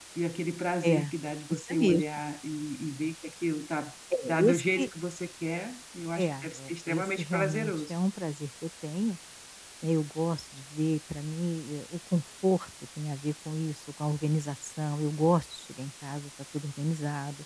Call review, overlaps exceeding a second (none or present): present